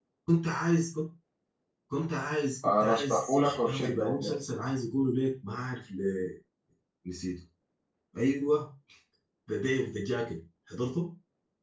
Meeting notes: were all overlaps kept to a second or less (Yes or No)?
No